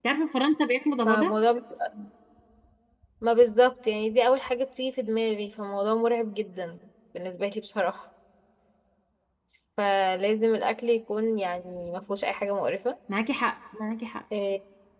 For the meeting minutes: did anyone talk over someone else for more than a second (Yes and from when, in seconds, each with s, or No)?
No